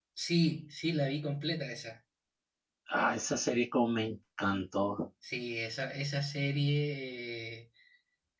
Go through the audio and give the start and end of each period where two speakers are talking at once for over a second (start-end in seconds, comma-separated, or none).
none